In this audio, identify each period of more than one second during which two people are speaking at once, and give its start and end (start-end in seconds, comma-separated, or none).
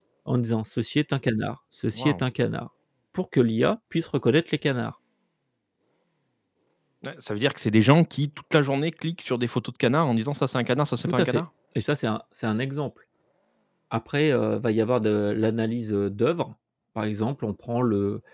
none